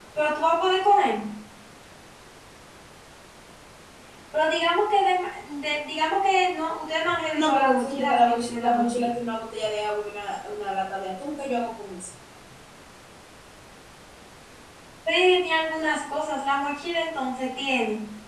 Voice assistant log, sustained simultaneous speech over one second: present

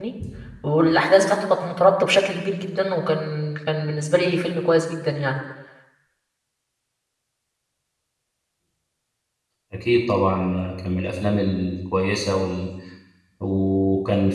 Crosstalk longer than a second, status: none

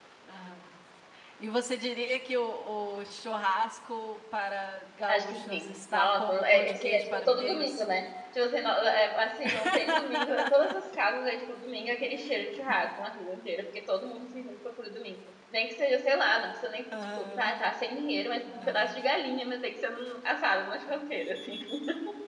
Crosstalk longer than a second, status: present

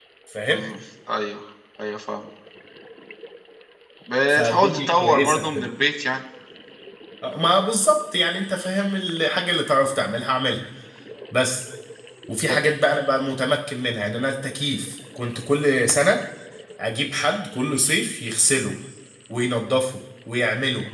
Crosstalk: present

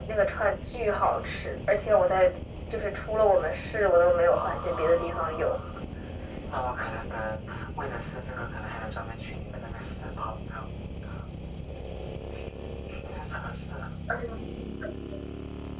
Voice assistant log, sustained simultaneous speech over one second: present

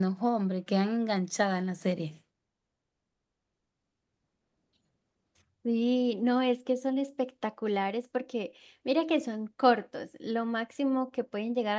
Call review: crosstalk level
none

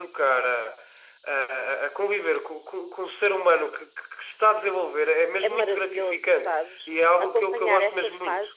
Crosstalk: present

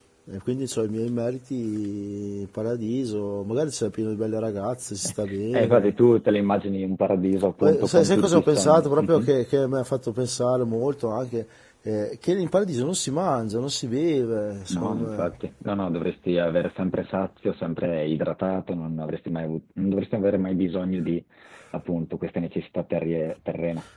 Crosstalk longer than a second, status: present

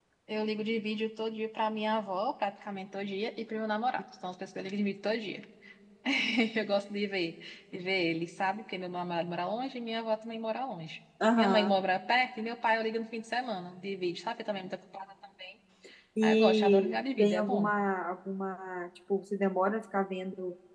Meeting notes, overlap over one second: present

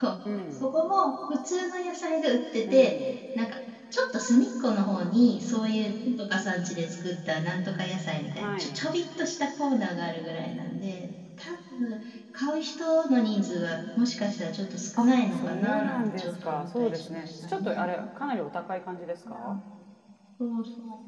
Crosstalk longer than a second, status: present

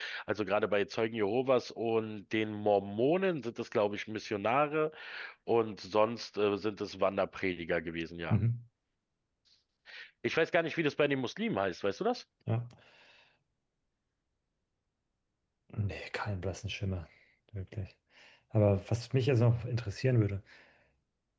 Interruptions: none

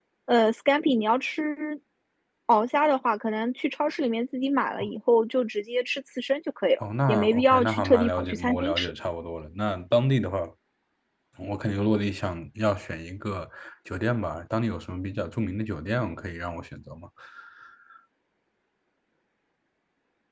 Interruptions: present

